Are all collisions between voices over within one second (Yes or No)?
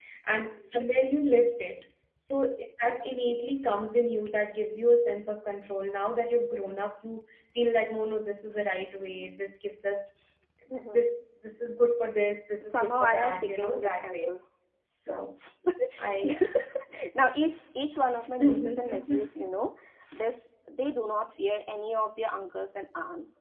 No